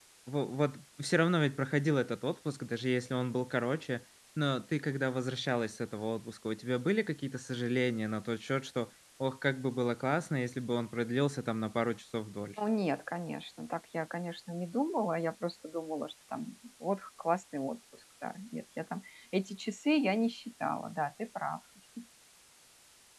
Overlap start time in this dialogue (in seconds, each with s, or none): none